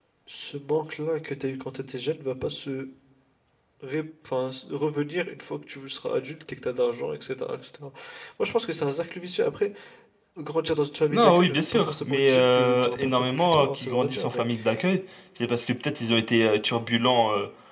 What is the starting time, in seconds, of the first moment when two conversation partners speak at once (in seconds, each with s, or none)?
11.1 s